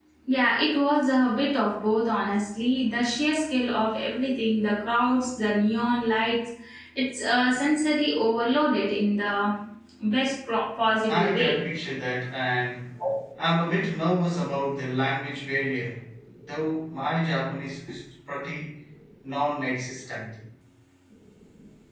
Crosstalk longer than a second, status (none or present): none